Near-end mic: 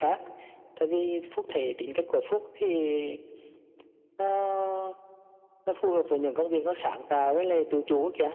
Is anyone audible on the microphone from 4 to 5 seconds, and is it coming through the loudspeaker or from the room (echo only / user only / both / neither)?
echo only